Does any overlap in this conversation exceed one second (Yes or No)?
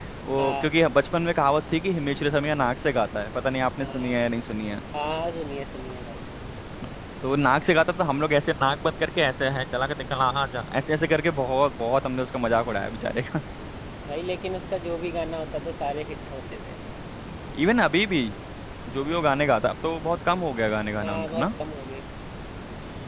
No